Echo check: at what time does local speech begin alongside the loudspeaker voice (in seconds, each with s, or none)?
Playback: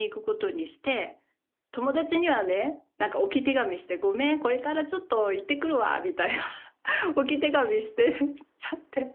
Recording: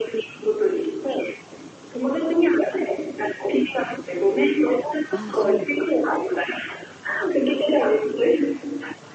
5.1 s